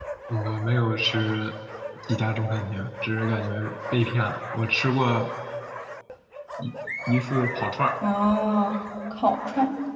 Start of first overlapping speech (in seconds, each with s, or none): none